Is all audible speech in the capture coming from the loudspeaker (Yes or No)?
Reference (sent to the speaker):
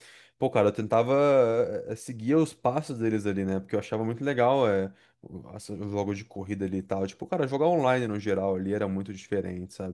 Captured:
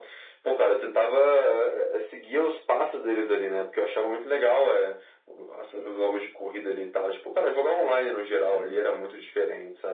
No